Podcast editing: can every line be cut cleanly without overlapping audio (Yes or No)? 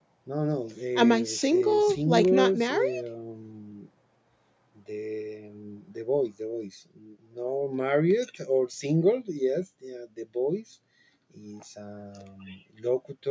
No